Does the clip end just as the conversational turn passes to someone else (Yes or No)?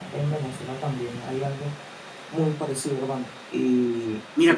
Yes